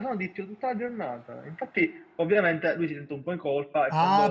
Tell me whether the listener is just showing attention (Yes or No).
No